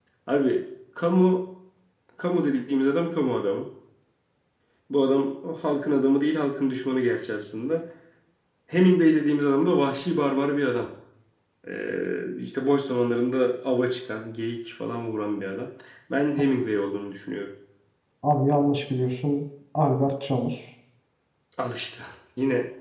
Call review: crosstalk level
none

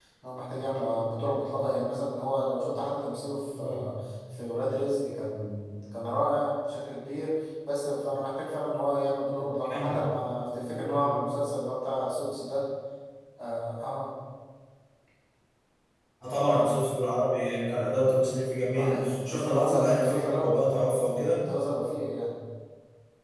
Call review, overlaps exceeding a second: present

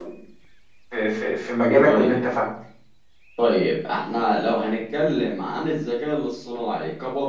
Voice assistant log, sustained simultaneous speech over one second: none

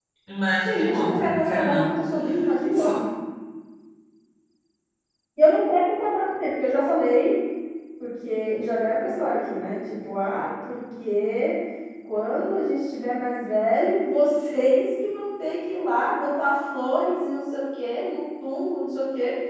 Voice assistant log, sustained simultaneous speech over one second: present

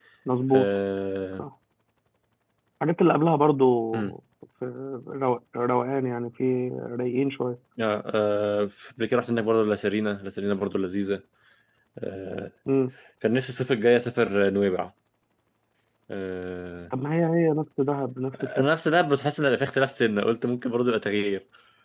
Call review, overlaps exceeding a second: none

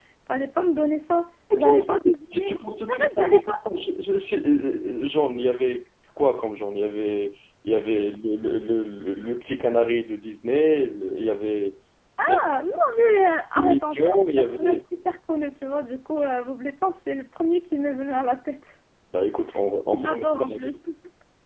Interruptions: present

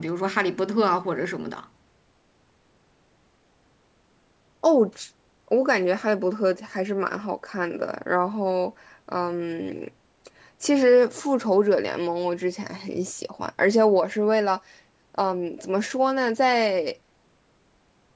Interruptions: none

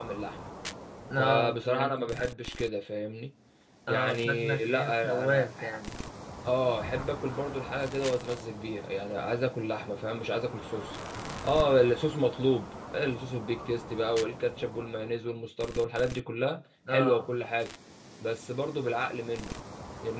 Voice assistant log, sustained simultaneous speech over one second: present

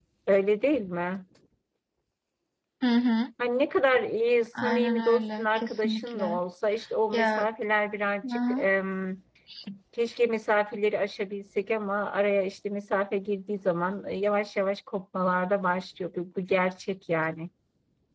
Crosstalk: present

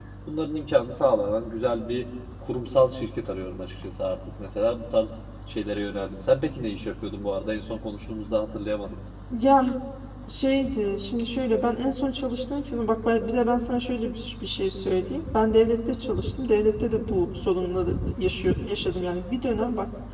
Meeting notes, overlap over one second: none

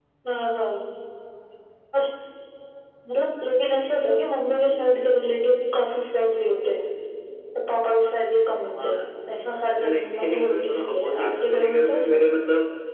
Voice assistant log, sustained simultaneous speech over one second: present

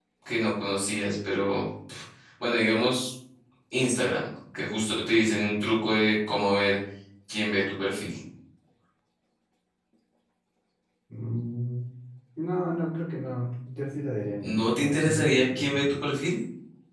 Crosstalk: present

